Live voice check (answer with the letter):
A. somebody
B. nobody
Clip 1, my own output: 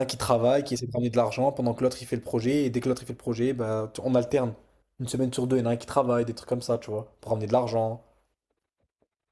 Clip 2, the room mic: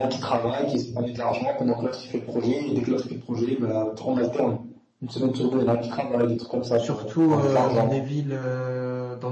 A